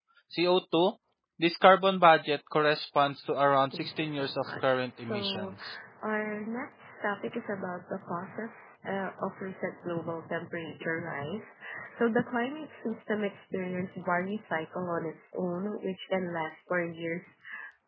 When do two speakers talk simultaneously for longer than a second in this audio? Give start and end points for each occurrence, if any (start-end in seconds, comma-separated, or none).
3.7-5.5